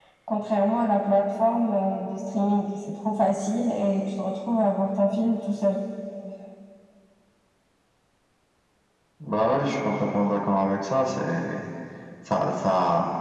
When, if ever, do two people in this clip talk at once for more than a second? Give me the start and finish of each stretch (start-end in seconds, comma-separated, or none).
none